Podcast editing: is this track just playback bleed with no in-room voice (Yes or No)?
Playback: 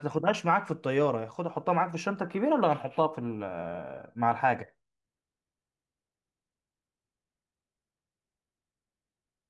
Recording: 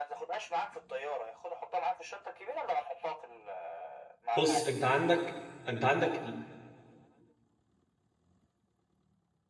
No